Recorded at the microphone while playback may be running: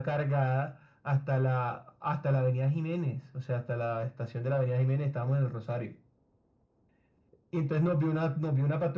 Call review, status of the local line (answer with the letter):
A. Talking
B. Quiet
B